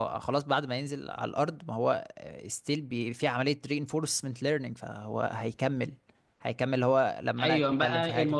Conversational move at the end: taking over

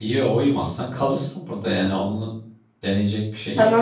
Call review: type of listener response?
taking over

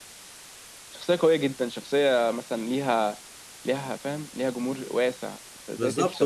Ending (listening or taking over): taking over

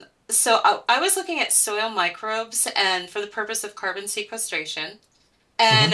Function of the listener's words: listening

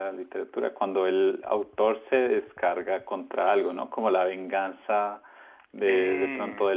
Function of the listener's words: listening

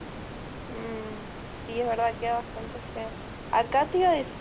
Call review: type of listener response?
listening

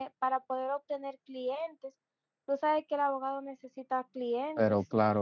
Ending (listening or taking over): taking over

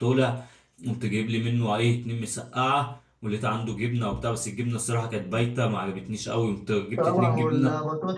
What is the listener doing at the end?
taking over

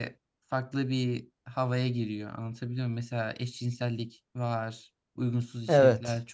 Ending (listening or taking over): listening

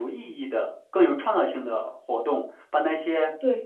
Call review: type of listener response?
listening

